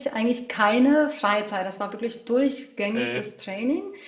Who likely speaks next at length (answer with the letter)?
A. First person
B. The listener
A